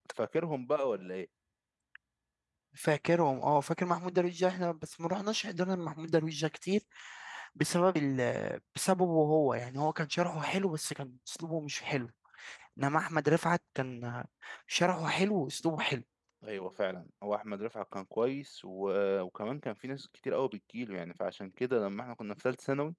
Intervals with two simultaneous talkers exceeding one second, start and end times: none

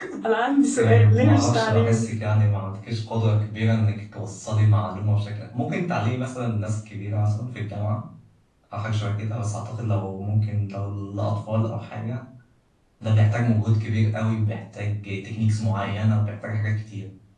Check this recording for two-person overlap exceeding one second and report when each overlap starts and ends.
0.8-2.1

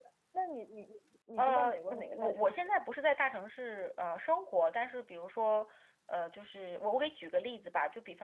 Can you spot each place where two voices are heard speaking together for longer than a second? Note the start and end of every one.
1.4-2.7

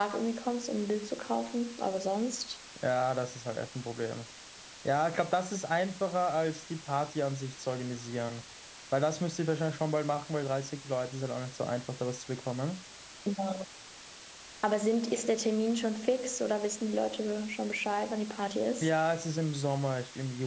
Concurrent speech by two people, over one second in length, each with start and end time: none

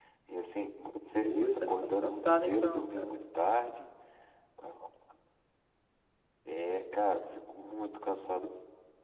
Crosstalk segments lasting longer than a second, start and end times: 1.2-3.1

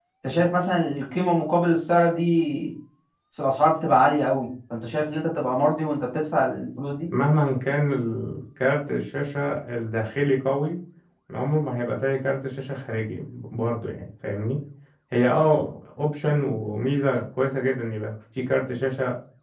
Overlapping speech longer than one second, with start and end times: none

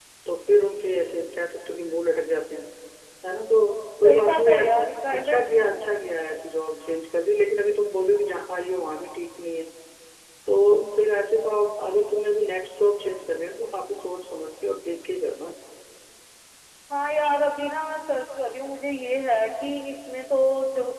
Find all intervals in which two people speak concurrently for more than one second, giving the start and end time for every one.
4.0-5.5

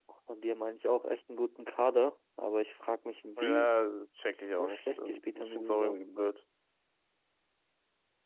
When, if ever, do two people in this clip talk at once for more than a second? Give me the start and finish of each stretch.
4.3-6.0

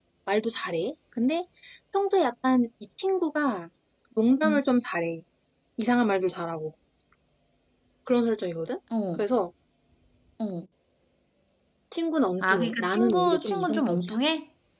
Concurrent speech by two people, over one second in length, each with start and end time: 12.4-14.1

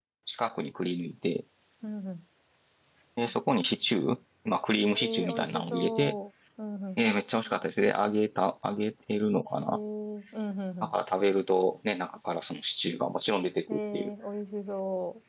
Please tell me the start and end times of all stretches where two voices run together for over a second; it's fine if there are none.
4.9-6.2

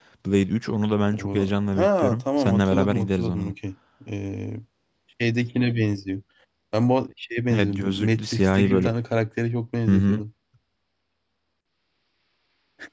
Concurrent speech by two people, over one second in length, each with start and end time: 1.1-3.5, 7.5-8.9

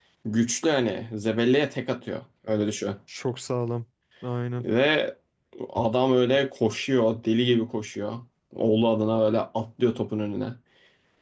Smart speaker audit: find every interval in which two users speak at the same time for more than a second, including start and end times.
none

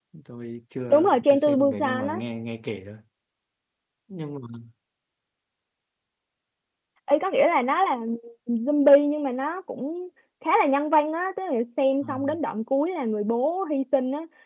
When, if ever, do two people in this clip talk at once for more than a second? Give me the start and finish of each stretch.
0.9-2.2

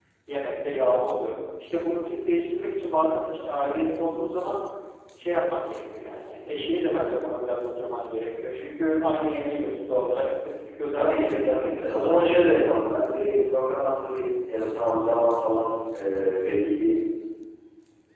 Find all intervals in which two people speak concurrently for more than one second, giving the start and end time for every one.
10.9-12.2

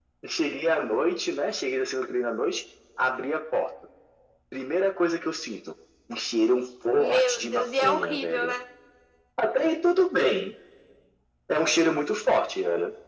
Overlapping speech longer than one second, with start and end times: 6.9-8.5

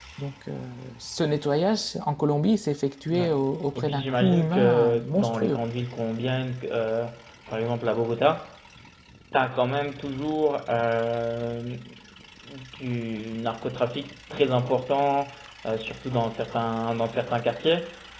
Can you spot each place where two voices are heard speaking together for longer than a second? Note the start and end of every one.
3.8-5.6

